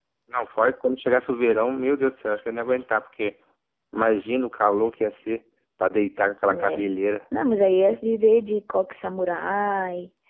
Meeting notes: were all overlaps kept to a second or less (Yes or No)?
Yes